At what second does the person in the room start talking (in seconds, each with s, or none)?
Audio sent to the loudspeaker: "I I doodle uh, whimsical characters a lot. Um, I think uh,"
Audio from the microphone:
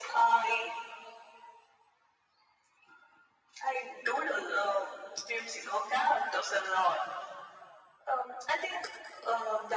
none